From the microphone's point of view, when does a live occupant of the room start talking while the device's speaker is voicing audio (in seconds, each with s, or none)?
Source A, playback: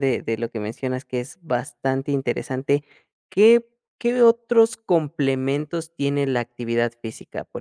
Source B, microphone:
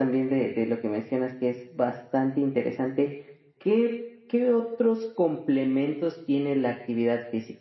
none